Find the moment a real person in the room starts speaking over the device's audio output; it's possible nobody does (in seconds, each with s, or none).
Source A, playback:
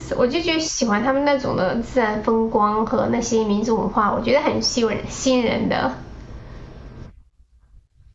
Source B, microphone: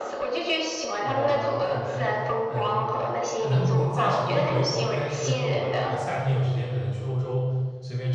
1.0 s